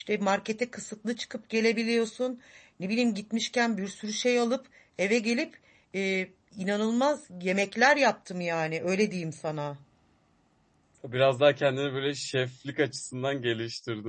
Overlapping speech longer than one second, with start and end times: none

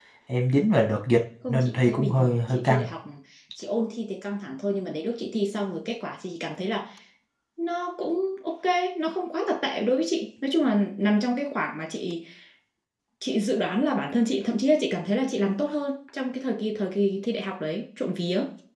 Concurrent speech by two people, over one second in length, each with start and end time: 1.5-2.9

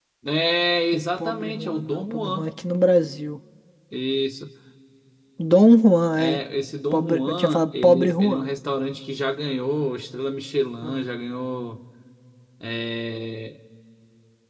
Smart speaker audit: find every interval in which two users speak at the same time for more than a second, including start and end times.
0.9-2.5, 6.9-8.5

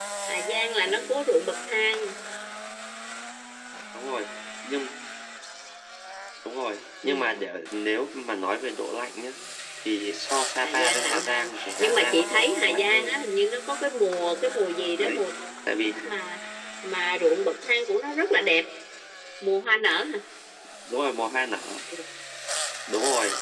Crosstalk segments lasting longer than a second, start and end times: 10.6-13.1

